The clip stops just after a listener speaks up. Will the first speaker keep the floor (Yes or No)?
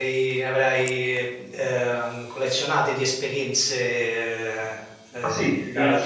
No